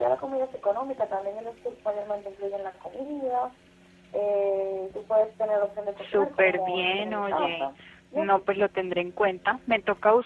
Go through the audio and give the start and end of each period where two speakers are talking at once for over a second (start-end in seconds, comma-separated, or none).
6.0-7.7